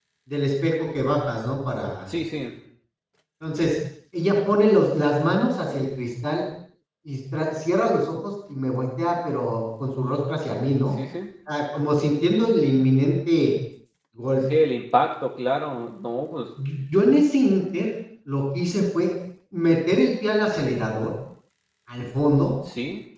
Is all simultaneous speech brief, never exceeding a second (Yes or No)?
Yes